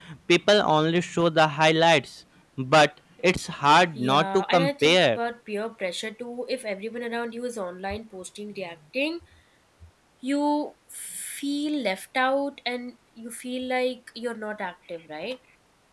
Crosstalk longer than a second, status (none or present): present